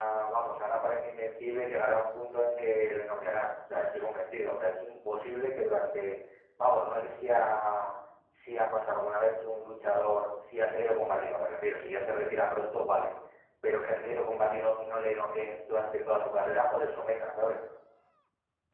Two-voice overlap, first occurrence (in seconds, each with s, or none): none